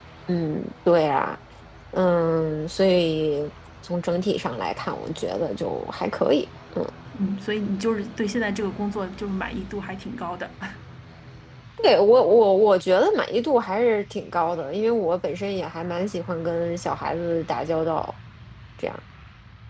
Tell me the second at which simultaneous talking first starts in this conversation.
none

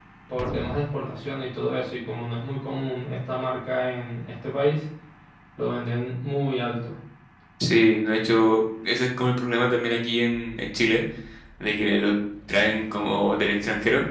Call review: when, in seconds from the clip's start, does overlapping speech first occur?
none

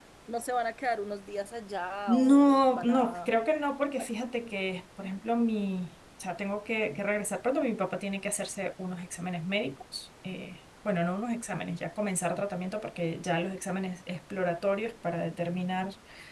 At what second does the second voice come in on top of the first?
2 s

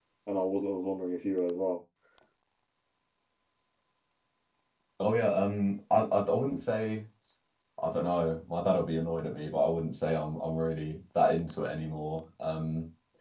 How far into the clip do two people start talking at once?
none

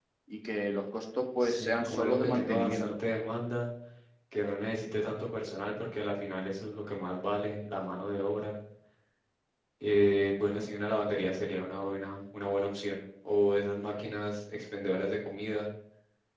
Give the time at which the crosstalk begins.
1 s

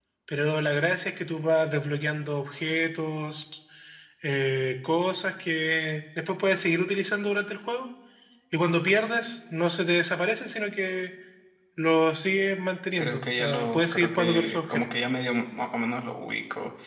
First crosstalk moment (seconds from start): 13 s

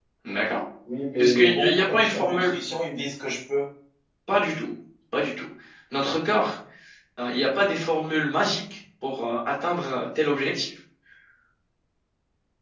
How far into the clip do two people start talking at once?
1 s

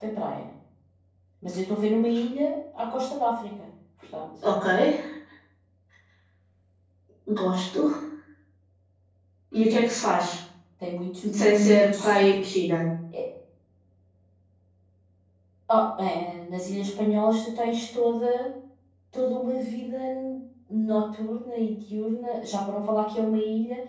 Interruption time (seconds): 11 s

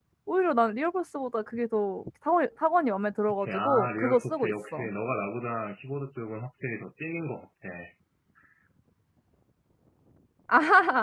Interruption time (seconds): 3 s

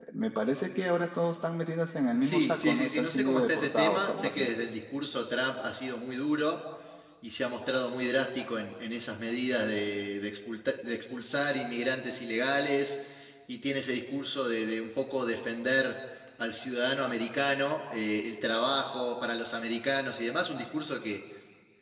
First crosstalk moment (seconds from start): 2 s

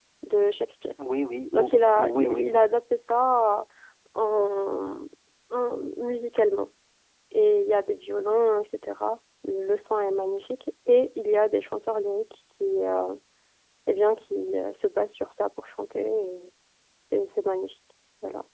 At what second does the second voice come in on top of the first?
2 s

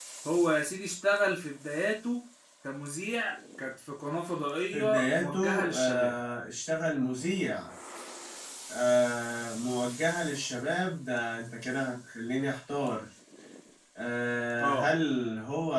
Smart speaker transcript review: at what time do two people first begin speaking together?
5 s

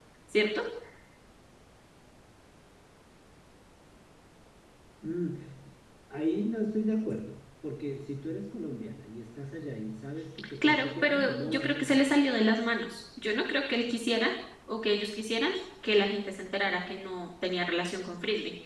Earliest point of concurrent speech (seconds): 10 s

